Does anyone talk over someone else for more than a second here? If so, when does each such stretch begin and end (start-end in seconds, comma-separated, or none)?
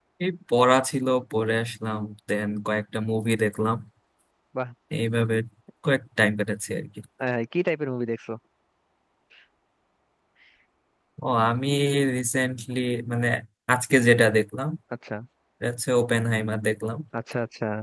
none